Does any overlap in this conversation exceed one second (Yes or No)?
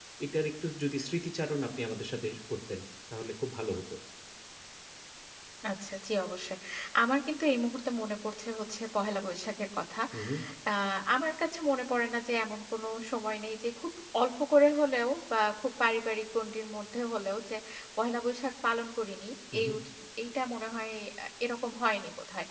No